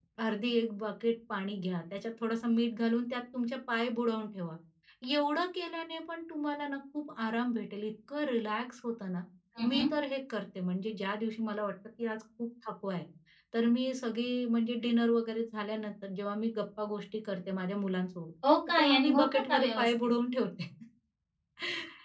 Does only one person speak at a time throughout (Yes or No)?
No